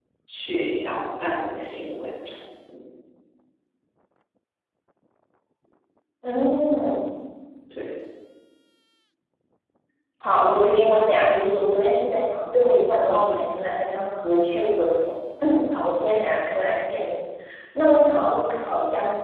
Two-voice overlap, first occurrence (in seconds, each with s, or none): none